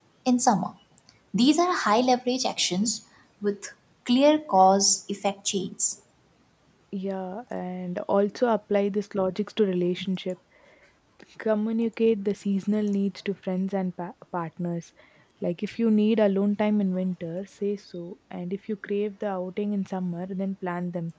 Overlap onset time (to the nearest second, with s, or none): none